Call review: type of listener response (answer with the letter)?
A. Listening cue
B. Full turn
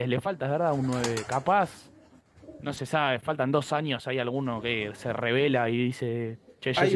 B